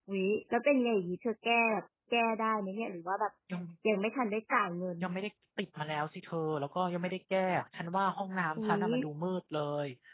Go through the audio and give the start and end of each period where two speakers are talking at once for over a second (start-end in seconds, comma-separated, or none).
none